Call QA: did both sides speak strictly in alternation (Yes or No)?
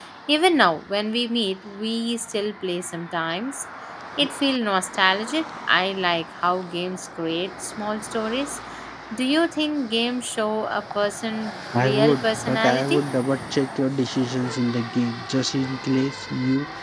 No